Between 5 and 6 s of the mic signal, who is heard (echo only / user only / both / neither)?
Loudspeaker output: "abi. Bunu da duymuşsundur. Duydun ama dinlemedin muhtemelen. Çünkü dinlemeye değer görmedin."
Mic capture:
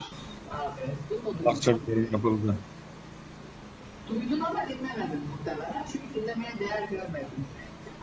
echo only